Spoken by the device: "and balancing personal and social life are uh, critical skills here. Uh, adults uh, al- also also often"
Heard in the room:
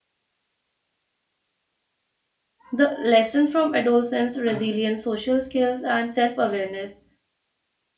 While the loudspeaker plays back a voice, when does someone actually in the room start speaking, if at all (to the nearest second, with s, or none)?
3 s